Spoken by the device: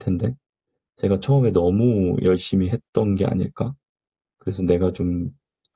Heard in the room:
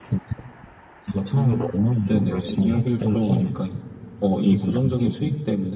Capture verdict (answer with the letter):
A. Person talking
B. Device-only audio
A